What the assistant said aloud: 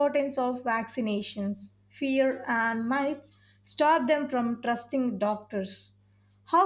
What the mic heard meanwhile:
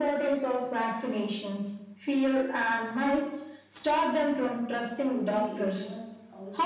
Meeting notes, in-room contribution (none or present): present